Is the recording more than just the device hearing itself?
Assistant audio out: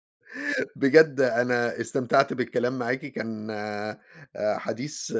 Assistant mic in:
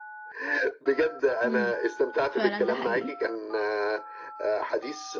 Yes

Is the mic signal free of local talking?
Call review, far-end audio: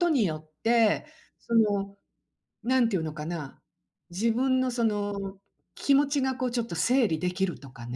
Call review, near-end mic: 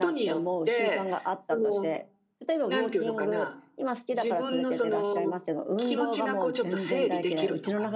No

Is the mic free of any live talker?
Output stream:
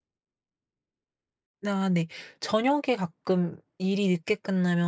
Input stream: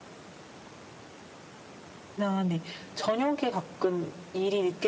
Yes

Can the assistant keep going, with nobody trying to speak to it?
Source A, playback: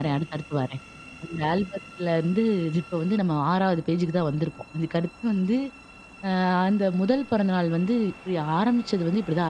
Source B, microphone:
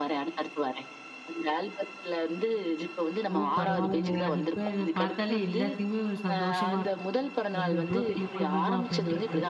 No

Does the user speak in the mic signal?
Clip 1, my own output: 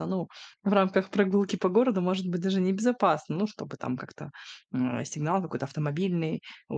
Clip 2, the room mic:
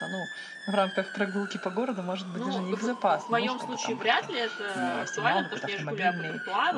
Yes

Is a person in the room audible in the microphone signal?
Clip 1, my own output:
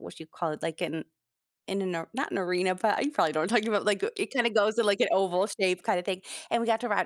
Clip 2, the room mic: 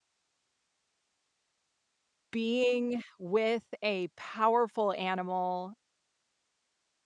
Yes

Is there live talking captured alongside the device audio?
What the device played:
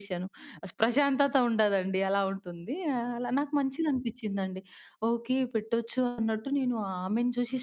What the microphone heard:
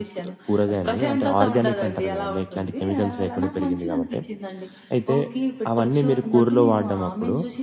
Yes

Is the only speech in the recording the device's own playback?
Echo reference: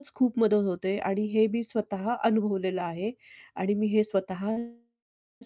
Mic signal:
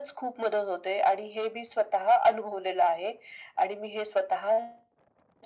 Yes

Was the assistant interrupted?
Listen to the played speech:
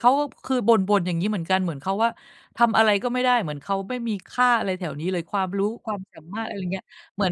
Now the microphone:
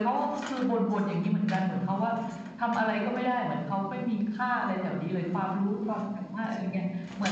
No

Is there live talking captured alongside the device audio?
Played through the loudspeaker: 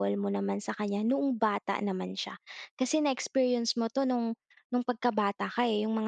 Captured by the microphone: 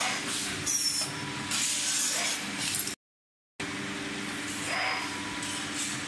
No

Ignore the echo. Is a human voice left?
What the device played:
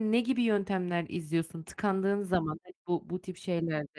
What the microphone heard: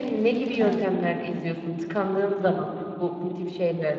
Yes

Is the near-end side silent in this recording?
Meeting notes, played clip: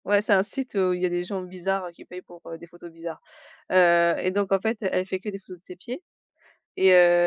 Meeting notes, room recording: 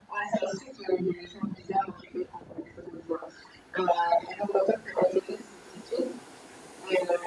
Yes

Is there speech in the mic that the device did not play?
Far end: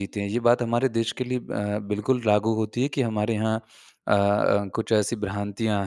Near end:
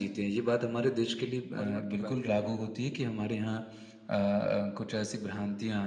Yes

